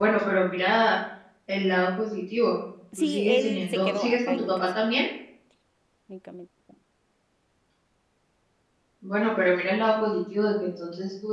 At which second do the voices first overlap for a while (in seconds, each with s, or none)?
2.9 s